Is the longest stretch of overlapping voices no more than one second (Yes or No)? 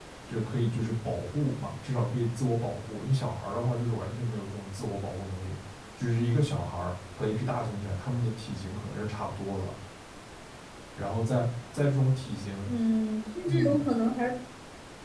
Yes